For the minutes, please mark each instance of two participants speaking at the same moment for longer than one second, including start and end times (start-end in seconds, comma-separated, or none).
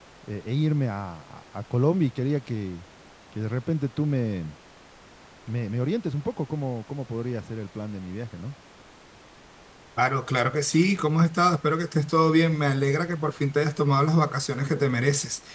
none